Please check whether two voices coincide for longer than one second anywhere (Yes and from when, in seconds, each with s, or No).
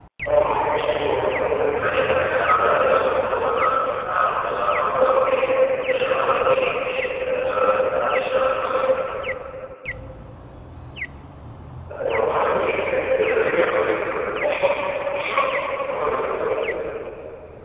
Yes, from 1.7 s